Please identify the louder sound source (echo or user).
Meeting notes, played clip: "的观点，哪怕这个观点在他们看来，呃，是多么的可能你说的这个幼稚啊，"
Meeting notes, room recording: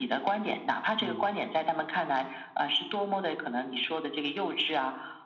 echo